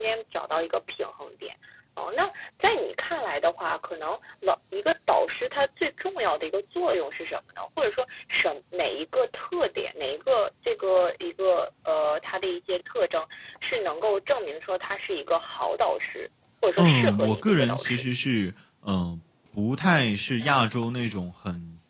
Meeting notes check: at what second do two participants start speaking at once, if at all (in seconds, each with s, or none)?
16.8 s